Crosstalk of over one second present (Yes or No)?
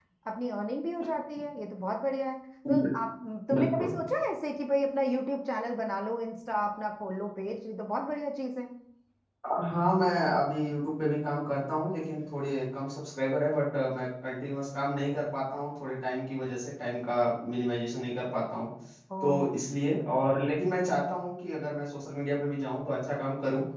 No